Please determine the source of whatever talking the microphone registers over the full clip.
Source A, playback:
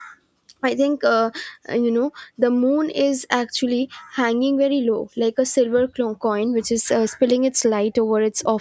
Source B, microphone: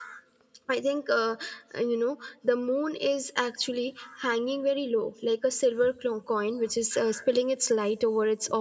echo only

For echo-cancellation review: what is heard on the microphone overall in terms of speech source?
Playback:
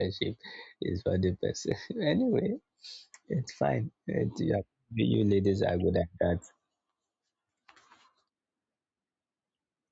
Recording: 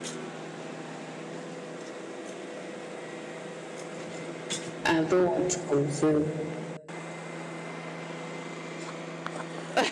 user only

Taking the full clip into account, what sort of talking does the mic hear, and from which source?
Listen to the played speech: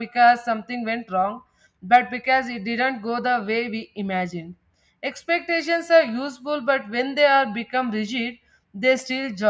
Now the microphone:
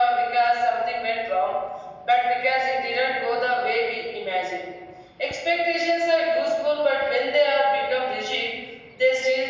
echo only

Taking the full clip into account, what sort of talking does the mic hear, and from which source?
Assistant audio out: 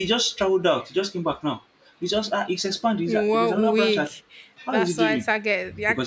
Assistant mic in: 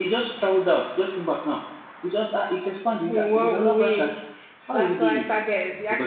echo only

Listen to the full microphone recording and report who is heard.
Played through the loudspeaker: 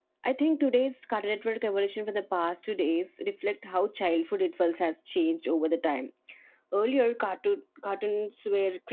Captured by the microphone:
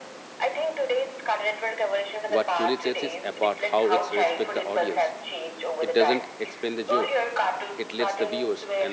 both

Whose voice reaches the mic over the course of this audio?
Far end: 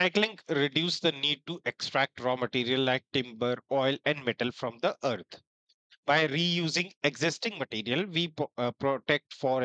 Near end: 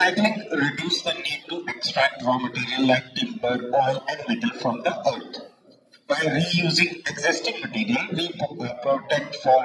echo only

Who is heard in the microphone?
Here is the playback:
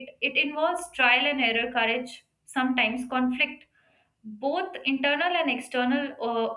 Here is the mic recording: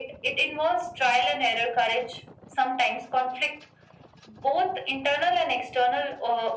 echo only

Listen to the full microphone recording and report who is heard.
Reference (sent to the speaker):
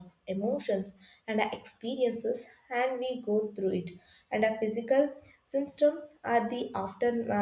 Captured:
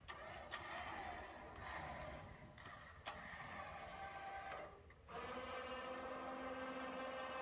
neither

